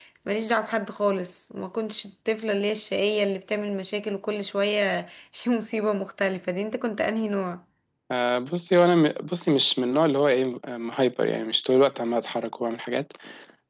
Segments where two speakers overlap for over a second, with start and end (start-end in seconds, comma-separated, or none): none